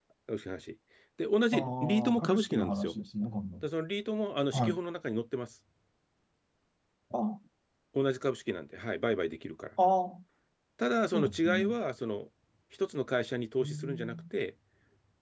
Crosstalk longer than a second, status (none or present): present